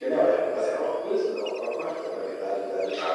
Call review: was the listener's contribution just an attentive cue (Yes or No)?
Yes